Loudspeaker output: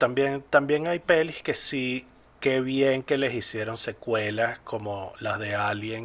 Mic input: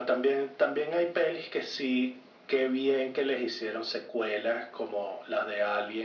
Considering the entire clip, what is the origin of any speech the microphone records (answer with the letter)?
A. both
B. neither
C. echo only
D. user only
C